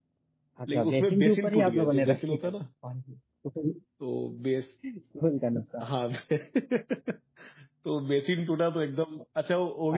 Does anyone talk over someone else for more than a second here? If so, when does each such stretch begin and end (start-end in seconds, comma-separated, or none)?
0.7-2.5